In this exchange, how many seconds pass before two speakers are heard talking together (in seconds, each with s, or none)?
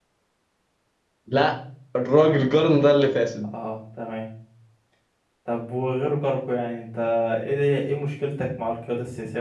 none